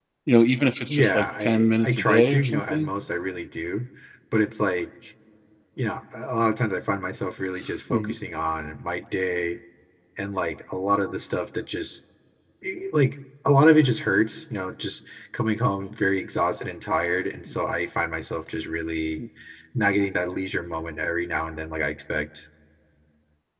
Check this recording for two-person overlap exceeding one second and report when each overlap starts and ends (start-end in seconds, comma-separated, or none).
0.9-2.9